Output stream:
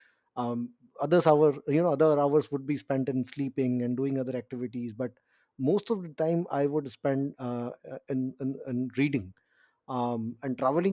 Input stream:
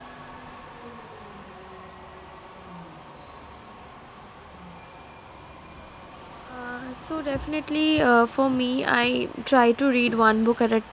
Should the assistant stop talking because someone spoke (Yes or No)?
Yes